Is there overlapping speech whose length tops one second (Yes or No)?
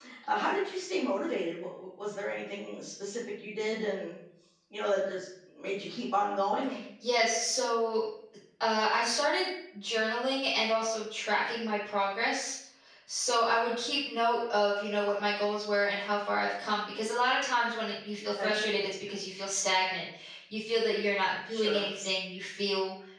No